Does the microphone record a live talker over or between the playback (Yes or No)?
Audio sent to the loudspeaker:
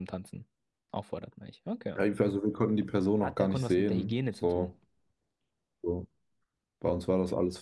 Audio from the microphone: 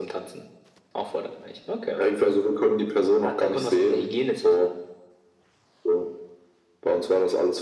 No